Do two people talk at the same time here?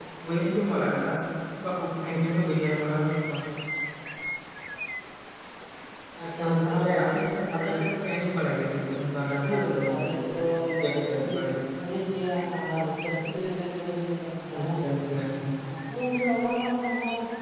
Yes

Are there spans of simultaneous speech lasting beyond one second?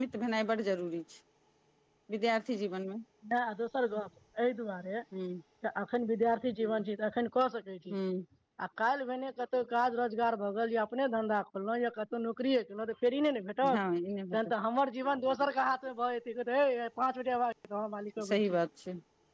No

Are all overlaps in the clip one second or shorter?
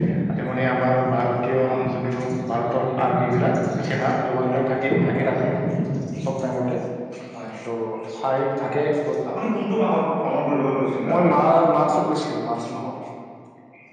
Yes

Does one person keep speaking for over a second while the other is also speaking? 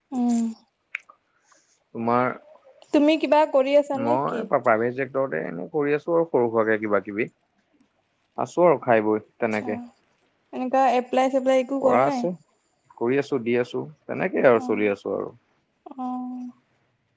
No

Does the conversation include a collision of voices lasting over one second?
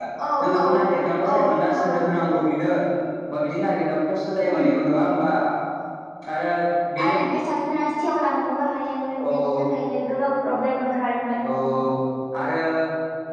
No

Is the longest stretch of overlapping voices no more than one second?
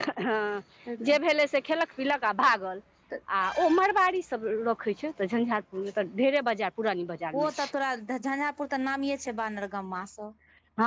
Yes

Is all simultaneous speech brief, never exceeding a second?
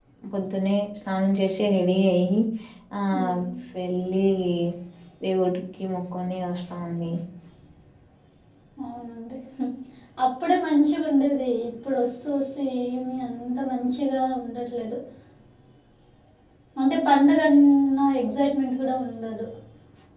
Yes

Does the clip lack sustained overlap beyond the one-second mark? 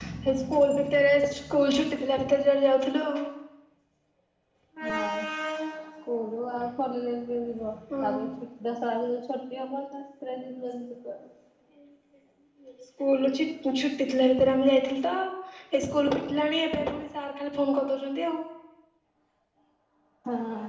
Yes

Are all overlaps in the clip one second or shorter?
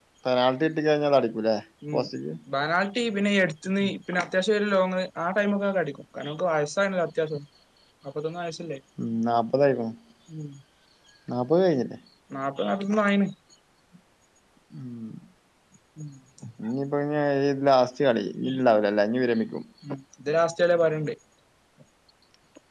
Yes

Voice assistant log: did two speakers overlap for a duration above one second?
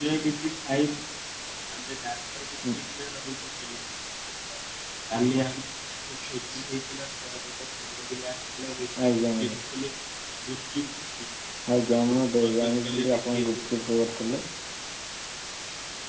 Yes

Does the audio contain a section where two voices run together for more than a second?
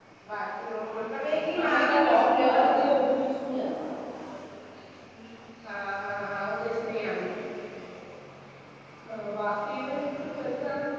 Yes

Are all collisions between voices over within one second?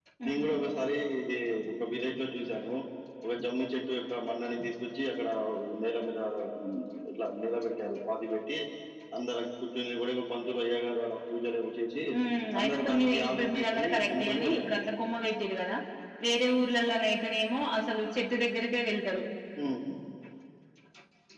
No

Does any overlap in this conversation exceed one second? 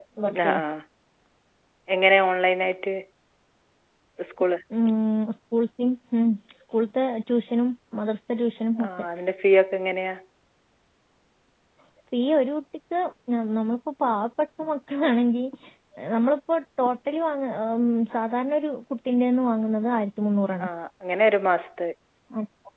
No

